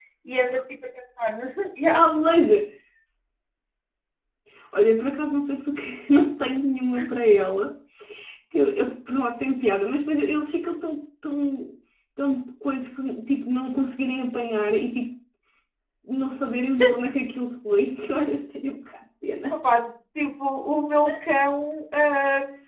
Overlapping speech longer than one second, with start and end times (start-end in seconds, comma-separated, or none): none